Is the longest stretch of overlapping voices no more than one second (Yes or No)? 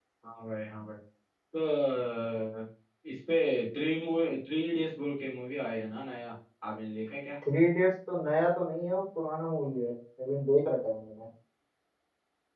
Yes